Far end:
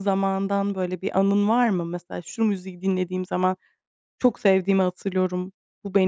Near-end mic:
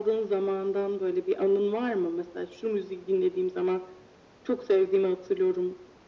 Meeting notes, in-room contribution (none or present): none